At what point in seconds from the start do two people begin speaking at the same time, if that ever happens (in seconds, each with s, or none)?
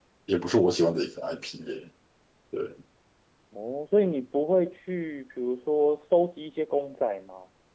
none